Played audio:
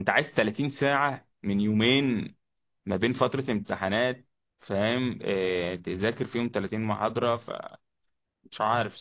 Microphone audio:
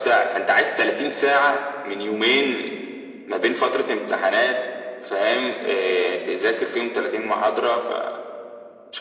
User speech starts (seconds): none

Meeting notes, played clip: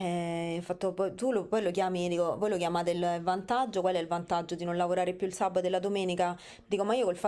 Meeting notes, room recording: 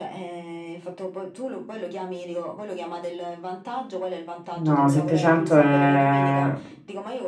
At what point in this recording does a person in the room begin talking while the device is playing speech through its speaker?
4.6 s

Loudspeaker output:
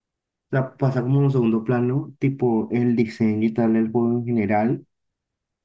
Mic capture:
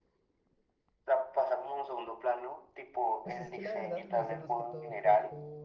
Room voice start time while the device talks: 3.2 s

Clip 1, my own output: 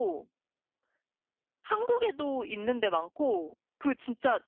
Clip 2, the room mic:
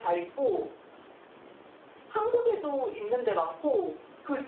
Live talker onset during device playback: none

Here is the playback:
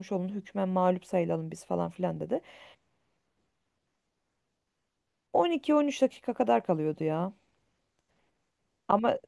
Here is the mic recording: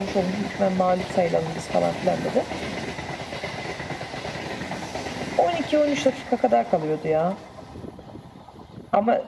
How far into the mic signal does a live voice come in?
none

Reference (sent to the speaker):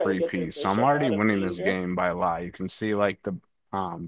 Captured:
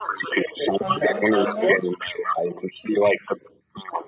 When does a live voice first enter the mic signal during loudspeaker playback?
0.8 s

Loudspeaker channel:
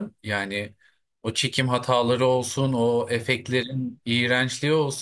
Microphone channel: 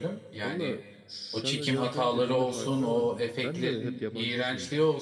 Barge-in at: 0.4 s

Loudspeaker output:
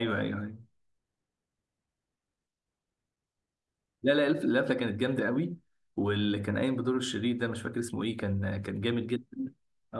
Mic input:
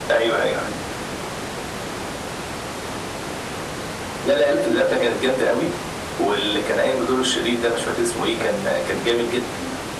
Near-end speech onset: none

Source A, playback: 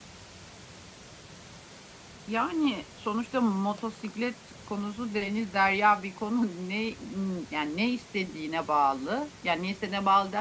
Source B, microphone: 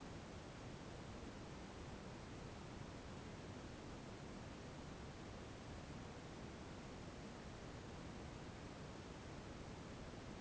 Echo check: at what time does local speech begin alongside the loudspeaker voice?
none

